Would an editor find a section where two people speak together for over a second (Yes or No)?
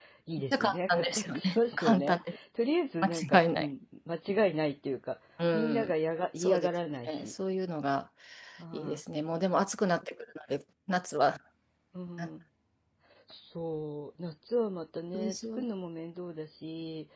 Yes